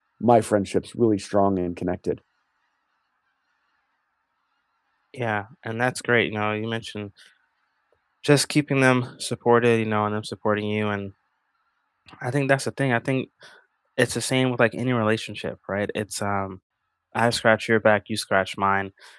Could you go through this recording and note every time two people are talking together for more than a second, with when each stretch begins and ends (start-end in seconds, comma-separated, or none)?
none